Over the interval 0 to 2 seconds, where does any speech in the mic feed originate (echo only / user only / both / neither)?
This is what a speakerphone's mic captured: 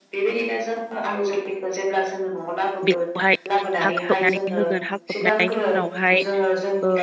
echo only